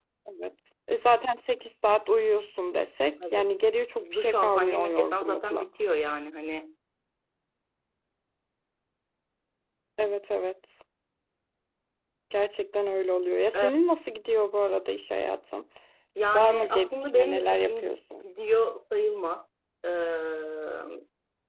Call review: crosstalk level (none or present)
present